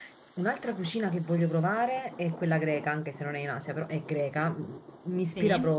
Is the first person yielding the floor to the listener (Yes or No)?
No